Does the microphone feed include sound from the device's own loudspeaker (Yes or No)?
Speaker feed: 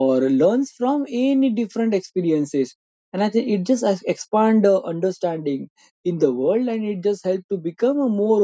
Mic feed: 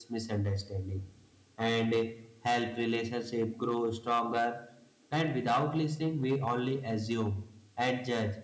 No